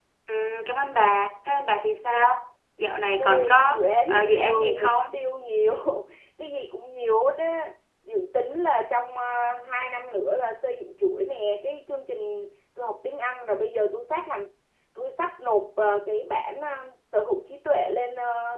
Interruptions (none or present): present